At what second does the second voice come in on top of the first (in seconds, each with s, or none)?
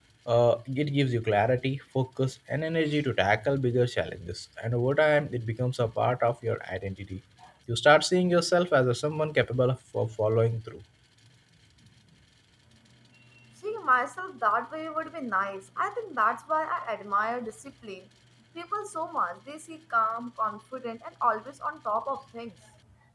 none